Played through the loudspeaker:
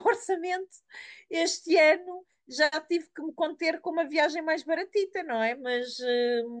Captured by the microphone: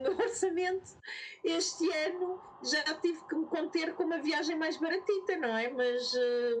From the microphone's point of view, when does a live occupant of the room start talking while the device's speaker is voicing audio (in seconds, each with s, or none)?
none